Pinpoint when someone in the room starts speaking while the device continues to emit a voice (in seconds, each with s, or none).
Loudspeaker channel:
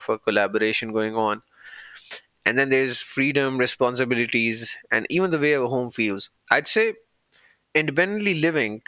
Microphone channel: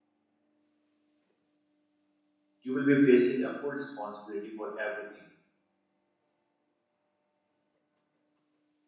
2.6 s